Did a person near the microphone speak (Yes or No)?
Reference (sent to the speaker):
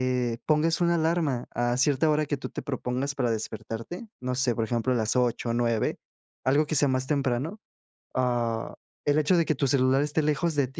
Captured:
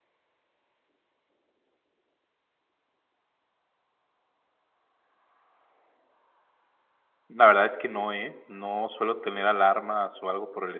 Yes